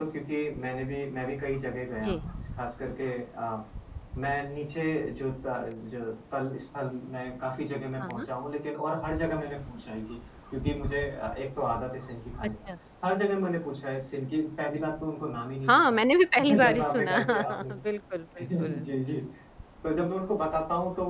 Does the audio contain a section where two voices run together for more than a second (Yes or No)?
Yes